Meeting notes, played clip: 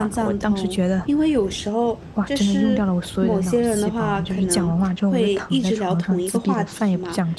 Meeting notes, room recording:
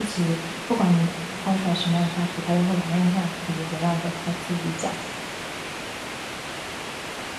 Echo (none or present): none